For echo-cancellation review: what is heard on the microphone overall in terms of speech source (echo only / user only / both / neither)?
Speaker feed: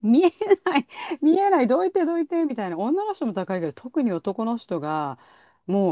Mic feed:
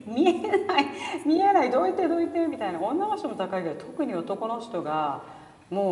echo only